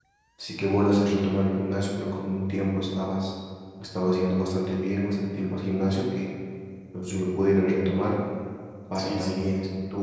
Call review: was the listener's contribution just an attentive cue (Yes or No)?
Yes